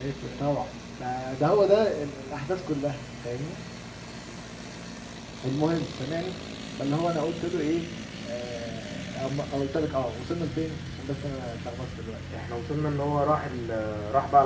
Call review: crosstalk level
none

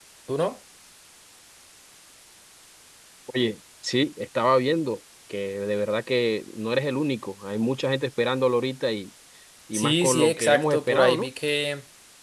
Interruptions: present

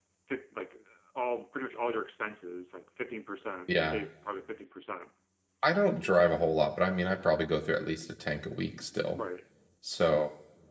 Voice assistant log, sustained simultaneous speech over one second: none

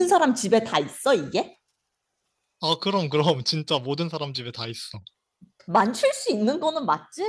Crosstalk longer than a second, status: none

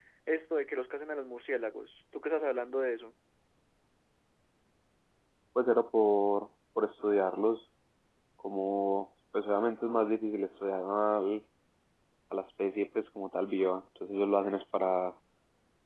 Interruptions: none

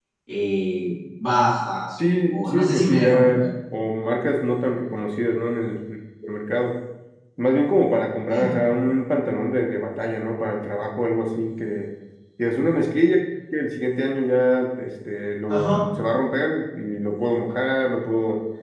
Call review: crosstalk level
present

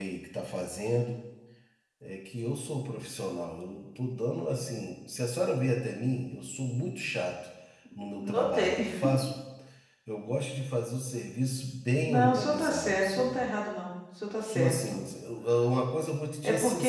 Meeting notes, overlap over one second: present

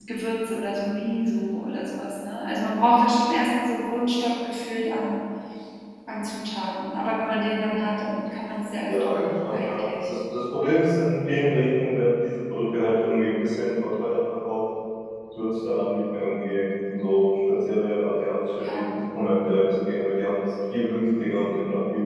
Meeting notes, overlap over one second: present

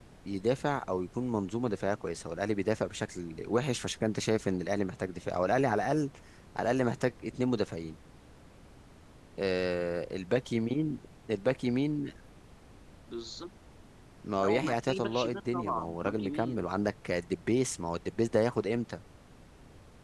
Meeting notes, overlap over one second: present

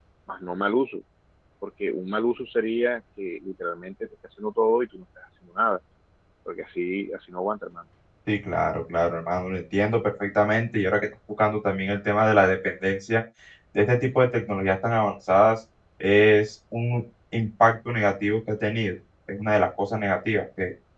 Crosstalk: none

